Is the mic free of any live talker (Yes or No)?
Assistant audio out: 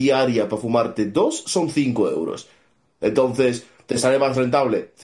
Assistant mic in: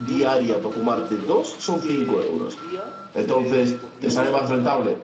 No